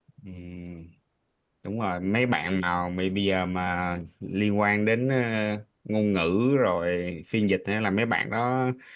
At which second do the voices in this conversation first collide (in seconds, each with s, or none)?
none